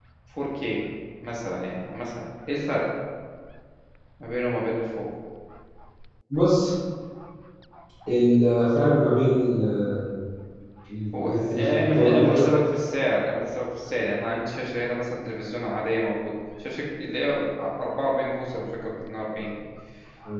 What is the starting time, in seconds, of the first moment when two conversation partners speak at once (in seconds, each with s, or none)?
11.1 s